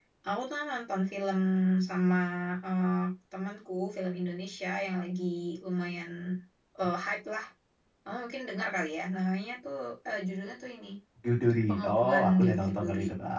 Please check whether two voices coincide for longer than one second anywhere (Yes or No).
Yes